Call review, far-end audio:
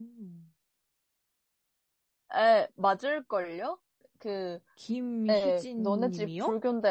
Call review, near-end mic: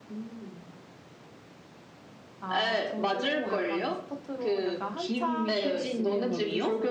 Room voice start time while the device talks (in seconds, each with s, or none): 2.4 s